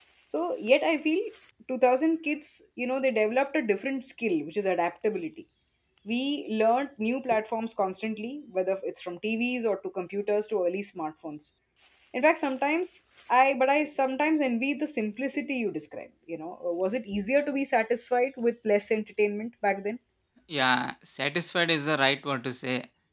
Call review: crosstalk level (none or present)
none